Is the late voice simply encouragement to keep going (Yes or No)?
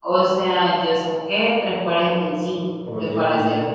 Yes